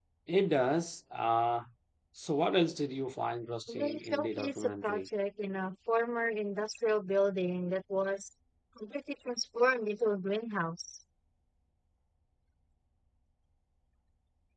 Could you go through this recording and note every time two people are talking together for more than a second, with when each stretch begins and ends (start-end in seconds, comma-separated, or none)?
3.7-5.1